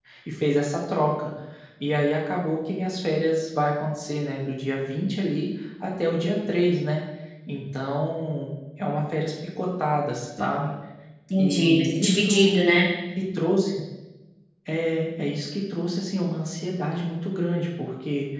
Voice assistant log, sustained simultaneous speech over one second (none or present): present